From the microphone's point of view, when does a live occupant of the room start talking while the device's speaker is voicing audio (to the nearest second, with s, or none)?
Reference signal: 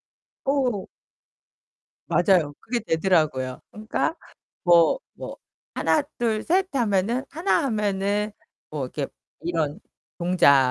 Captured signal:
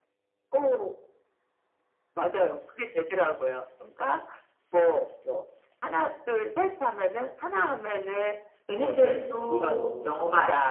9 s